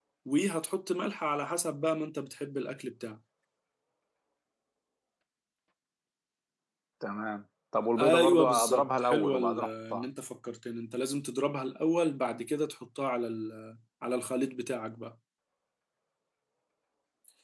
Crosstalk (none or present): present